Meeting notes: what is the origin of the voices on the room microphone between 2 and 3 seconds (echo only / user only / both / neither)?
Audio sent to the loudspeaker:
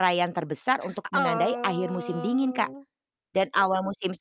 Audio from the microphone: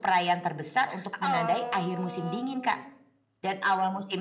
echo only